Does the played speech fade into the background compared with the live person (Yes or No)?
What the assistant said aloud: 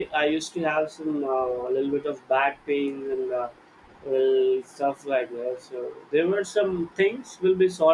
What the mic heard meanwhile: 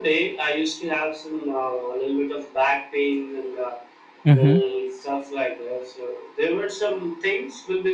Yes